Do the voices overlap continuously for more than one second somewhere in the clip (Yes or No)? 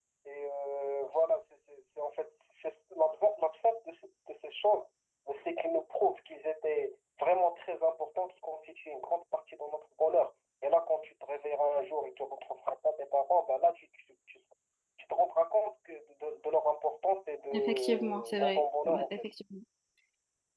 Yes